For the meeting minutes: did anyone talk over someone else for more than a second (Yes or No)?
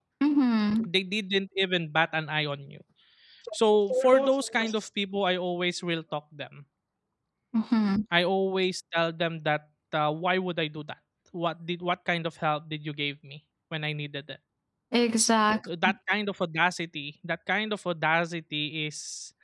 No